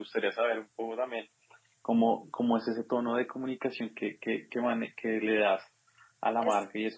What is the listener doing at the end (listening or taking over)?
listening